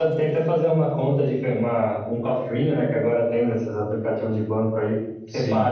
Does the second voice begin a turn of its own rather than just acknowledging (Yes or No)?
No